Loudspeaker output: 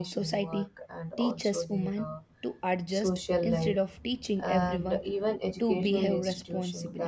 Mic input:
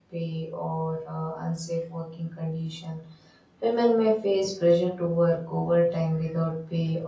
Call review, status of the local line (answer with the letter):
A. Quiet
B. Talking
B